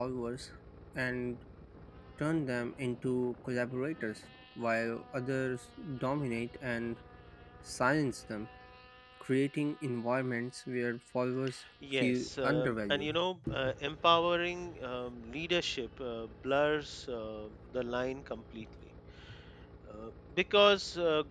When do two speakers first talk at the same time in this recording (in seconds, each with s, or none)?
11.8 s